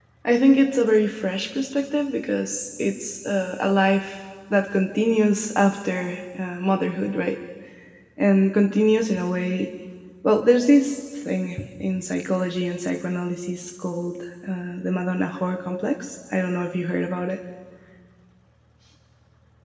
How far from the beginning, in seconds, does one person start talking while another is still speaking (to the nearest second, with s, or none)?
none